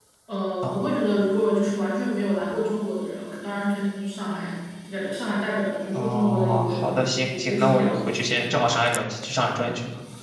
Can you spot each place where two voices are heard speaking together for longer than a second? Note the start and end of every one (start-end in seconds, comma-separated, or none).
5.9-8.0